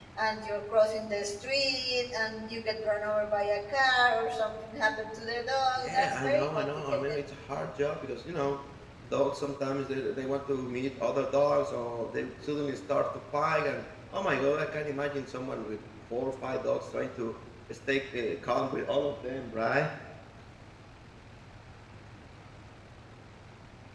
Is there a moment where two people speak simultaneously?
Yes, from 5.8 s

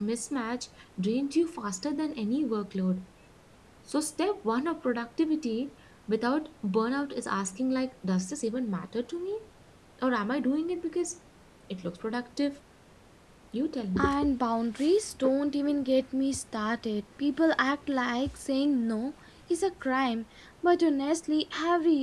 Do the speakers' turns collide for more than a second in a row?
No

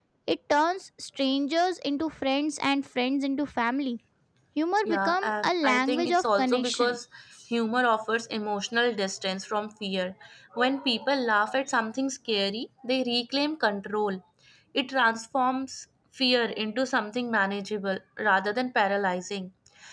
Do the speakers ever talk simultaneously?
Yes, from 4.8 s

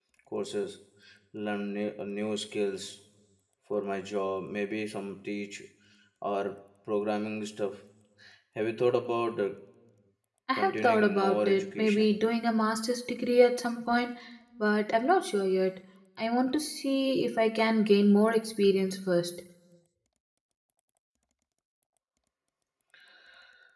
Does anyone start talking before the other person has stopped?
Yes, from 10.5 s

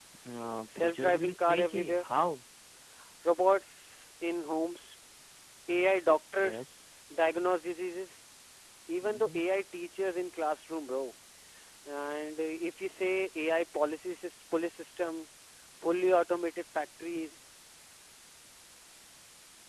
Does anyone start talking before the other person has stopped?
Yes, from 0.8 s

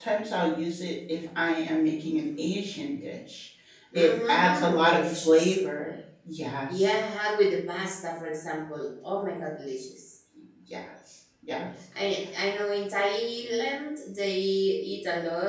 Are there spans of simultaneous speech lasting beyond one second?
Yes, from 3.9 s

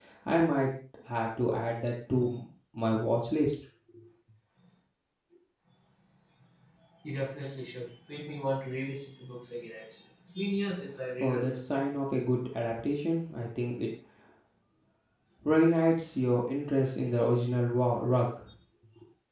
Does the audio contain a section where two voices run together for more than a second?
No

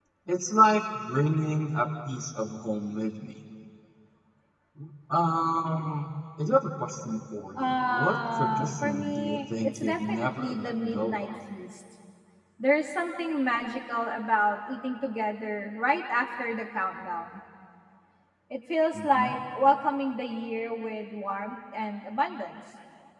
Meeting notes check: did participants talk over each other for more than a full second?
Yes, from 7.6 s

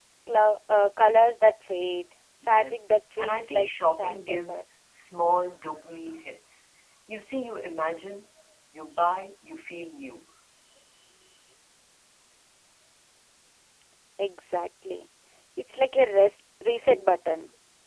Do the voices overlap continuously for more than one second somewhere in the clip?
Yes, from 2.4 s

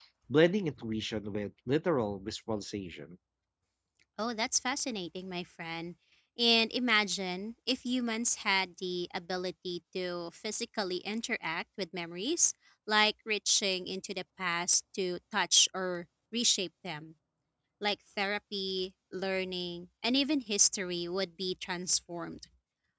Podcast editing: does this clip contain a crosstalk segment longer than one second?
No

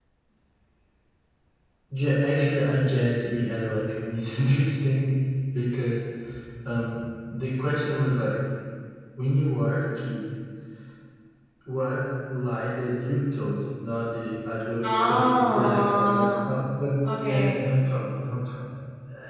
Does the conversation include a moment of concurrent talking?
Yes, from 14.8 s

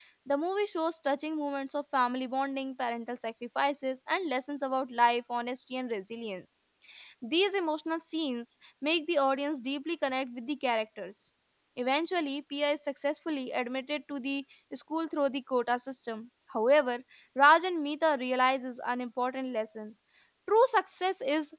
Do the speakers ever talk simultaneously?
No

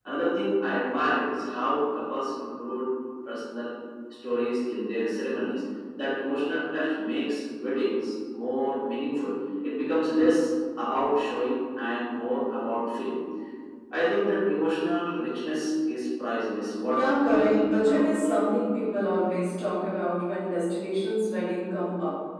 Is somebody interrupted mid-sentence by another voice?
Yes, from 16.9 s

